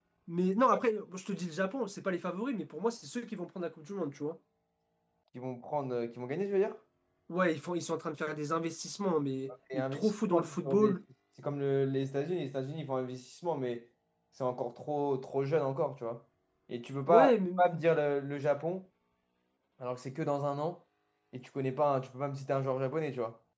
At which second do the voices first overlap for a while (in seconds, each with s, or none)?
9.7 s